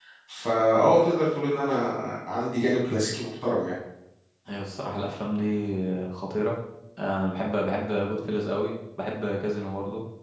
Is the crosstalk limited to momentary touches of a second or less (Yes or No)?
Yes